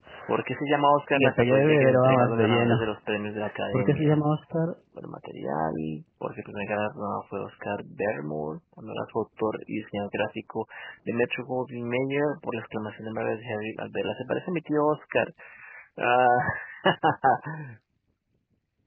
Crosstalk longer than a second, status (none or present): present